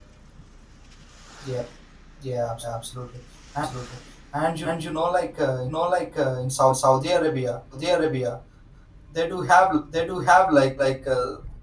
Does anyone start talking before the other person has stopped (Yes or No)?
No